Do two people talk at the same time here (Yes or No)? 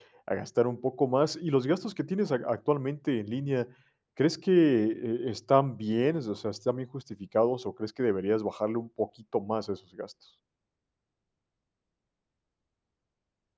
No